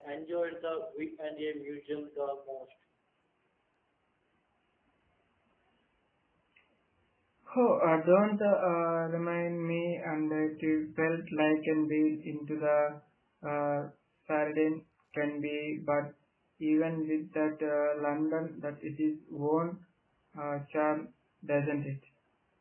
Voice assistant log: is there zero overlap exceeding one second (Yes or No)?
Yes